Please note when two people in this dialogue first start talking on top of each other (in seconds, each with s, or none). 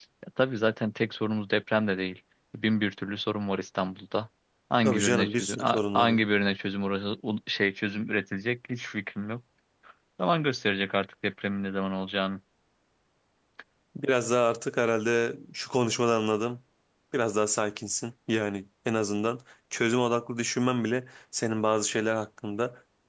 4.8 s